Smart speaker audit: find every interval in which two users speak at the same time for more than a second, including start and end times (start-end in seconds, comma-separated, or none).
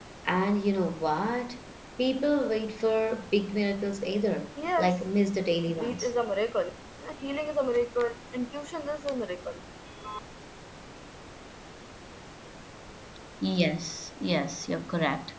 none